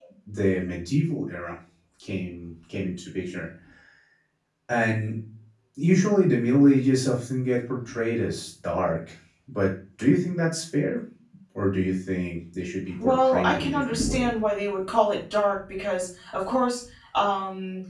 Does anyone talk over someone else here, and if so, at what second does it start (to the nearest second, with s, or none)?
13 s